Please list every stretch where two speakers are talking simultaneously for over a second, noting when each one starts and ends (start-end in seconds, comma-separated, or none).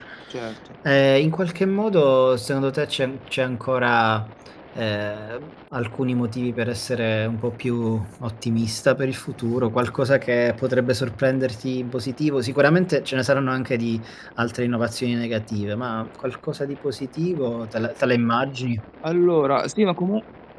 none